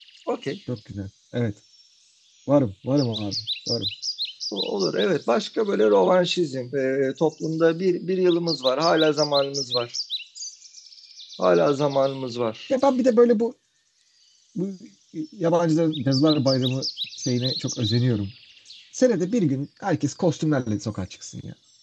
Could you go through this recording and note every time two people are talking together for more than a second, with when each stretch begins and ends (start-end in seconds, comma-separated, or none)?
none